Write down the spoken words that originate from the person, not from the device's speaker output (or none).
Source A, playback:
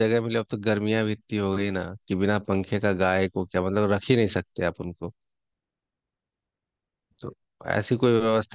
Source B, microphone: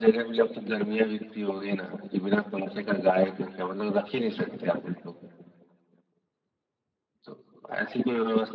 none